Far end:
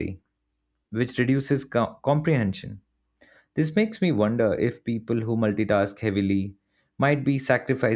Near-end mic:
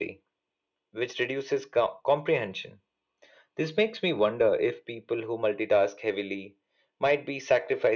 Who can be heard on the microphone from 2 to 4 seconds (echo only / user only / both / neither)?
echo only